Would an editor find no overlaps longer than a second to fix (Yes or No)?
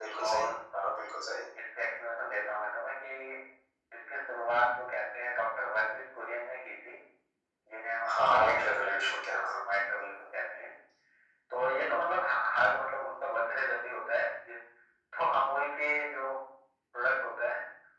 No